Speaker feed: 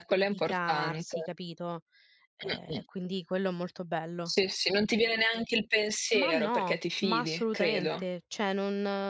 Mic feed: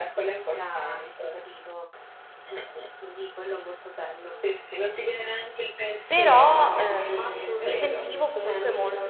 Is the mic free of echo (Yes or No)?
No